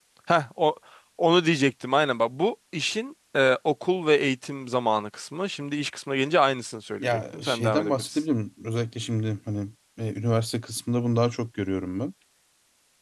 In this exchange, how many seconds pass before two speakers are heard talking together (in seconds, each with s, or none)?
7.0 s